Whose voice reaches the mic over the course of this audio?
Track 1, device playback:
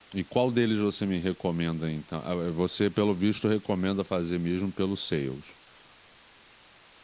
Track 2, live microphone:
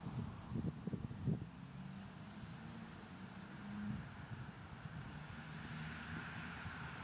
neither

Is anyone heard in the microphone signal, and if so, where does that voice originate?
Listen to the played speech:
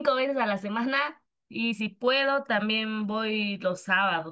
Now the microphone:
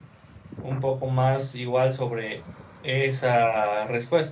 user only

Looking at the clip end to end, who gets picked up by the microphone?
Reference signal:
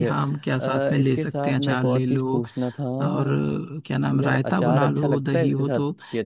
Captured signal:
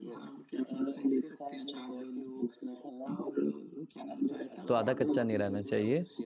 both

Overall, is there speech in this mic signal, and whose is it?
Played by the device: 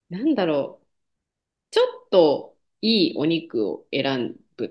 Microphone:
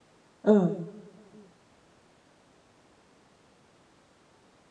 user only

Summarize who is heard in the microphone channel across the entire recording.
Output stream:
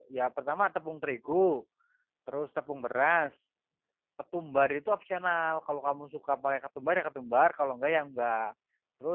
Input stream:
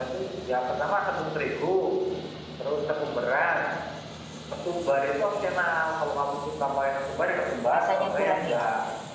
both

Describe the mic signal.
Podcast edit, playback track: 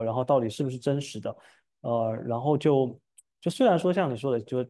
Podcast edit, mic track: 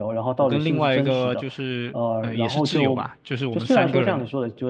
both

